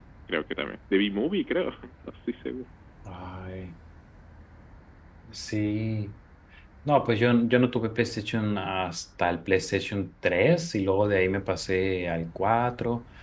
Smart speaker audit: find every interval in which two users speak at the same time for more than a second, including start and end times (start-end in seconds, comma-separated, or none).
none